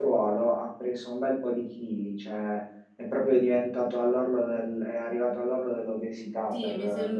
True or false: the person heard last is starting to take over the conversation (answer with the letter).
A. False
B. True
B